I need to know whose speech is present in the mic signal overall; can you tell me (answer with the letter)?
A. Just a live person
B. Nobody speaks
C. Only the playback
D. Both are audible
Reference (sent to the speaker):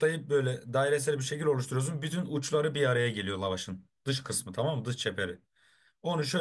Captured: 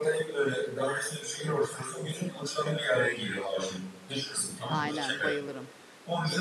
D